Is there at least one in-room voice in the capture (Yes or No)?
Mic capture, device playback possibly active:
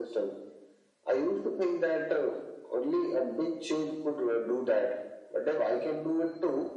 No